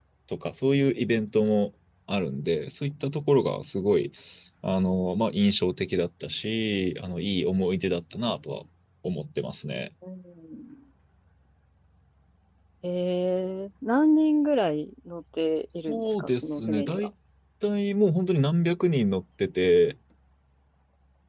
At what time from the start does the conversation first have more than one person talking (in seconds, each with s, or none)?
15.9 s